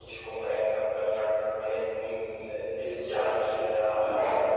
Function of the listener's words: taking over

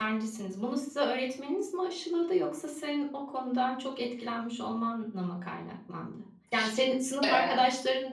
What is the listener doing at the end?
listening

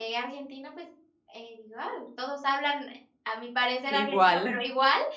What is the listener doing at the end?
listening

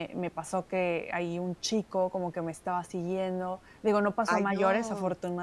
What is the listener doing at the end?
listening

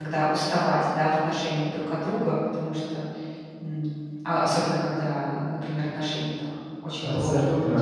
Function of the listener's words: taking over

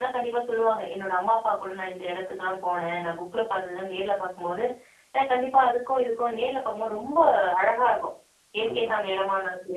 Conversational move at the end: listening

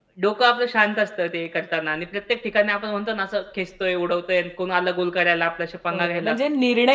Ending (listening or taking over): taking over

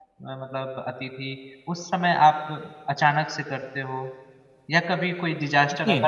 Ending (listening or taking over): listening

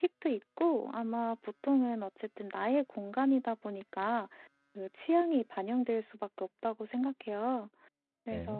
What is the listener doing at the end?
listening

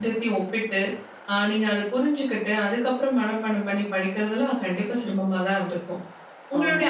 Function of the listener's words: listening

